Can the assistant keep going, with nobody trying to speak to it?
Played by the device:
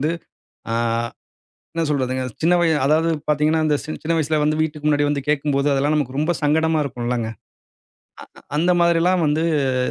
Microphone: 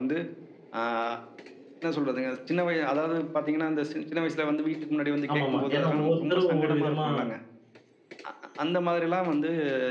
No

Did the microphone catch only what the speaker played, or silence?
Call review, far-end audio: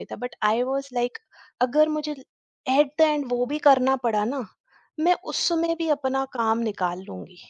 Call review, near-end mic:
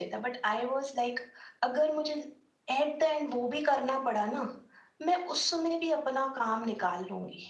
Yes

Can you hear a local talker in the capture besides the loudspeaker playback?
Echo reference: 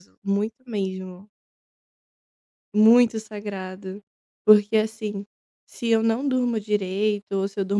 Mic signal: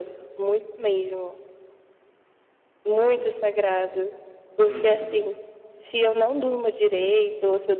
Yes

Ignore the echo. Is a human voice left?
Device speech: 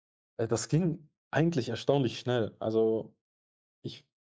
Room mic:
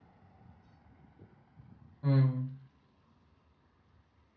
Yes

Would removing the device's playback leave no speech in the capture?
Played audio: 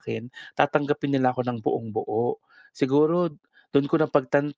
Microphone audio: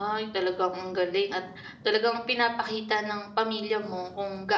No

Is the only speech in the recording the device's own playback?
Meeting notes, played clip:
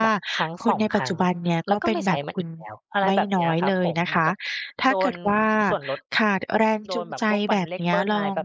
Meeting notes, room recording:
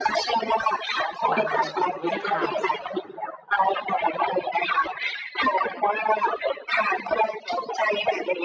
No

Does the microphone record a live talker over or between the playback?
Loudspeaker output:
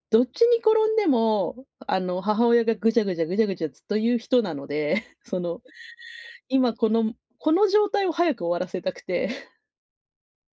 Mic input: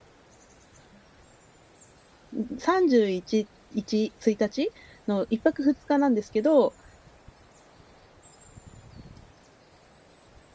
Yes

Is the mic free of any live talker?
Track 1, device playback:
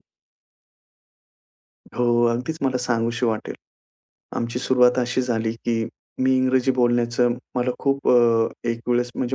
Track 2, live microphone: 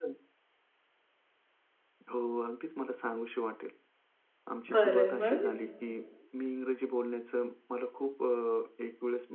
No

